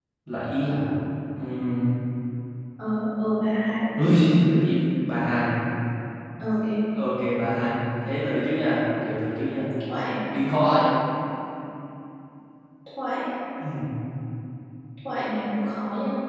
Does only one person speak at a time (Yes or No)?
Yes